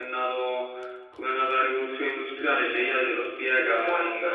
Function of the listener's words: listening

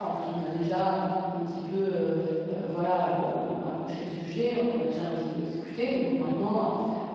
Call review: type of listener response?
listening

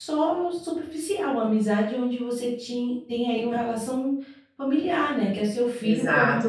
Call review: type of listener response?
taking over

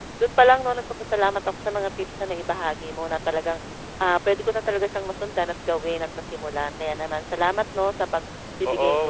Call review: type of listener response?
taking over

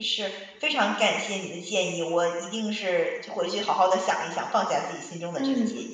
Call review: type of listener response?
taking over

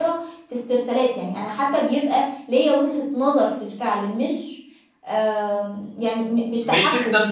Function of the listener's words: taking over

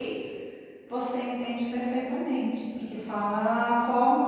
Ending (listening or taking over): listening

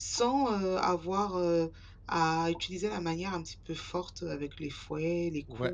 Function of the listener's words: taking over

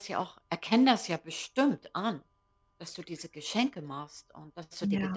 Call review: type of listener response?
taking over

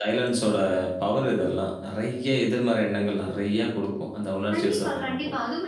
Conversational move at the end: taking over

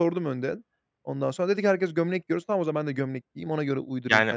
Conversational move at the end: taking over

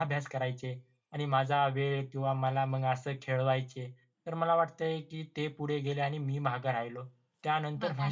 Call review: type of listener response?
listening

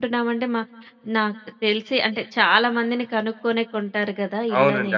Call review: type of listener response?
taking over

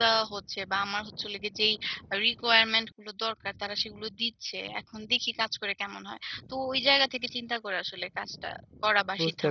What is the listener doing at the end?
taking over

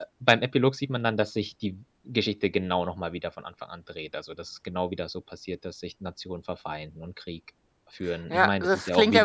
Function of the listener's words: taking over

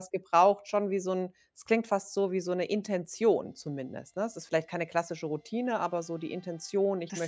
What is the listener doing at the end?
taking over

